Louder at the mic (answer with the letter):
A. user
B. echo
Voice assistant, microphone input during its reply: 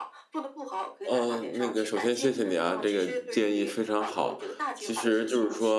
A